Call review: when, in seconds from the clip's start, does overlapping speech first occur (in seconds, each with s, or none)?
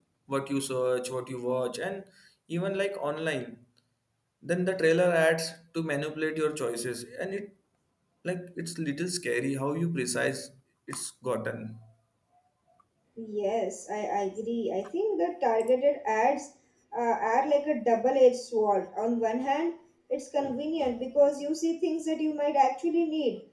none